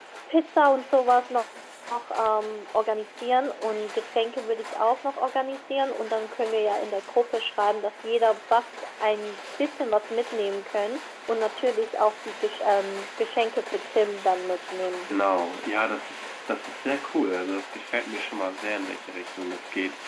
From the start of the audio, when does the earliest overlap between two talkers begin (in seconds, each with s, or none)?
none